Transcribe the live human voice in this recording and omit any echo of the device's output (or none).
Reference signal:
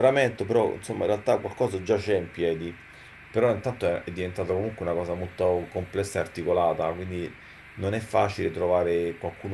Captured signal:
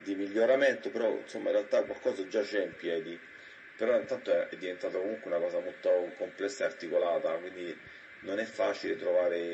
none